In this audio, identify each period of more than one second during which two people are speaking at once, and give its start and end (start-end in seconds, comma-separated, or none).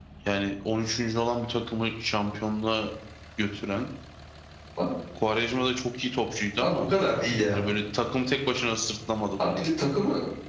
none